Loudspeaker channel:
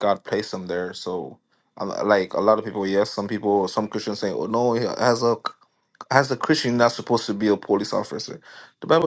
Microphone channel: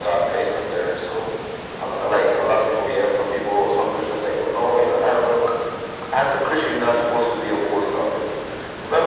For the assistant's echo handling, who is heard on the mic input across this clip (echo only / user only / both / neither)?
echo only